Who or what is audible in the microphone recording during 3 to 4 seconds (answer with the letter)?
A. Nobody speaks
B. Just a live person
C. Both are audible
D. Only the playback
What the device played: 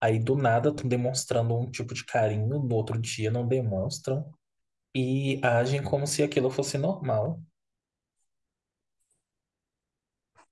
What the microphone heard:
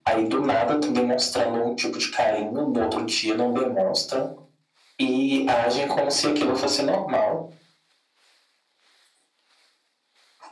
D